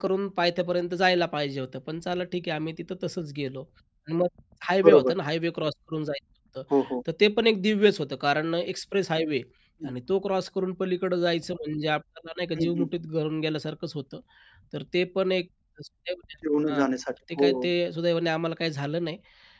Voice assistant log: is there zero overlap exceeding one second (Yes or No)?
Yes